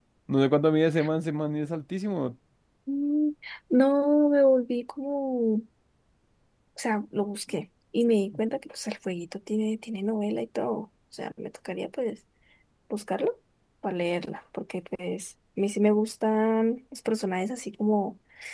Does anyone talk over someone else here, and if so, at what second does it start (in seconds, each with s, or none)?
none